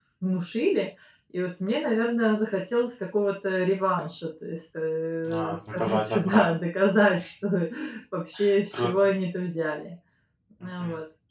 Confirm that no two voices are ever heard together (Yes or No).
No